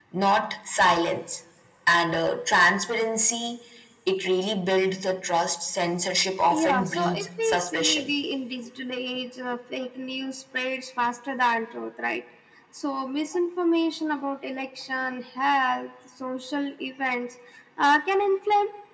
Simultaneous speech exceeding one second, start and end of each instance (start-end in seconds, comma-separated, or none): 6.5-8.1